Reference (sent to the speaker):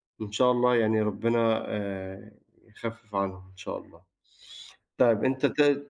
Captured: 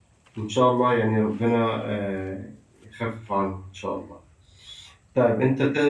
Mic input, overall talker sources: echo only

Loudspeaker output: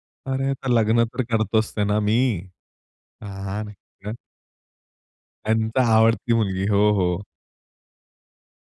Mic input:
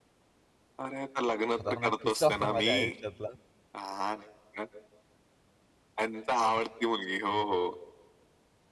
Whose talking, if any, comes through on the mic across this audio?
both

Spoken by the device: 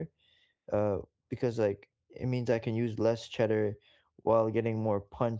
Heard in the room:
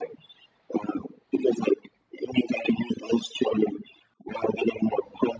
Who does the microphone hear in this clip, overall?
echo only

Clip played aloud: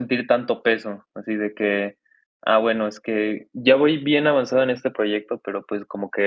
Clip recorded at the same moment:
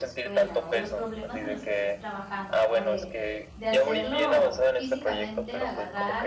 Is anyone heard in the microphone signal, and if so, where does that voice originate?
both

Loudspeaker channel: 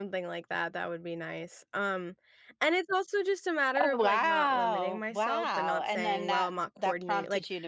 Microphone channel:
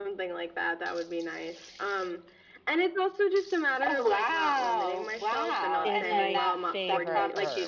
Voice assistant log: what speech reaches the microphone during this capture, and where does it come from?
both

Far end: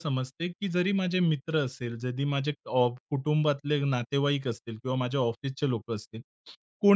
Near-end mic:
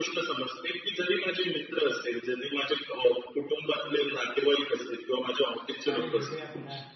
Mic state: both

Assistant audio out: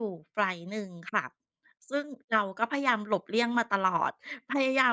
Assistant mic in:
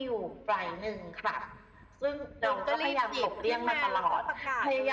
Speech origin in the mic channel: both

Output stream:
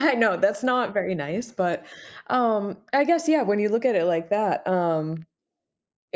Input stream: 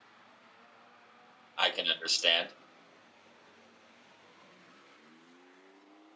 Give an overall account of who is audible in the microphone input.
user only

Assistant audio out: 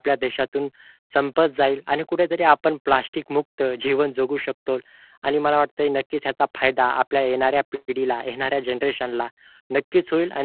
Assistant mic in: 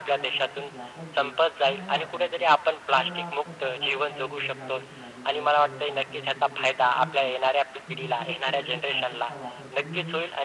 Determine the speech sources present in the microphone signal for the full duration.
both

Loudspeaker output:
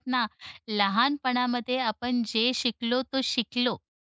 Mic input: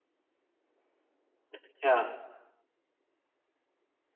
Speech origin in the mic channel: user only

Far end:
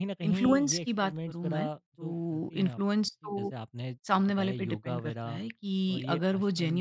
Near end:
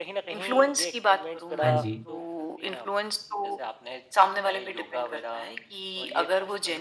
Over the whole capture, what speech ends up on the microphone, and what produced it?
both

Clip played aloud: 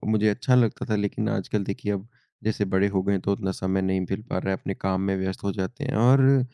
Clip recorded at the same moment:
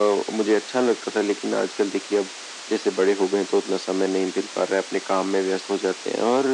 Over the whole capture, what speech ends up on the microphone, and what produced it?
echo only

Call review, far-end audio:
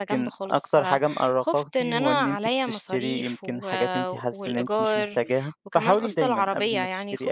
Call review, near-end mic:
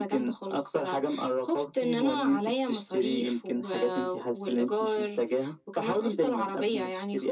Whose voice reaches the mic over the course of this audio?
echo only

